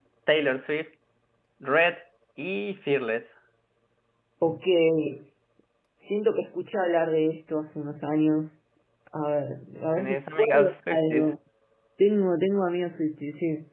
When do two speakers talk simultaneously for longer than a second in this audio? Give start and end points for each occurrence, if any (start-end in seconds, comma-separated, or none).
10.0-11.3